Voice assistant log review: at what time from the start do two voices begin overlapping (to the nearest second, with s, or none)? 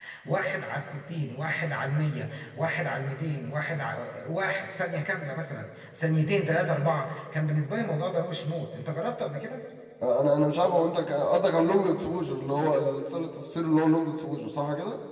none